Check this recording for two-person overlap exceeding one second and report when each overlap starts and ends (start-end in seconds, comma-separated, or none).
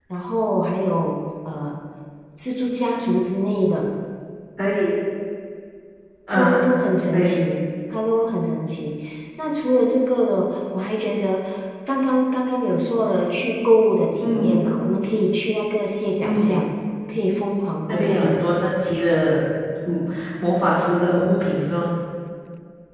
none